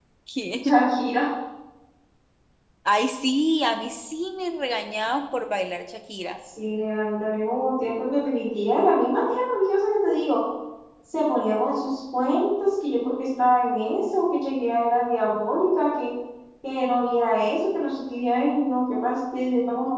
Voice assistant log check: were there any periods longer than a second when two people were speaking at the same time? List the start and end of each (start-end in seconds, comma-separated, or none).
none